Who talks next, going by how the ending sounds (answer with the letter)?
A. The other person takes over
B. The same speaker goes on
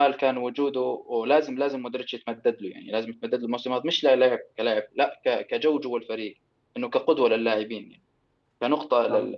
B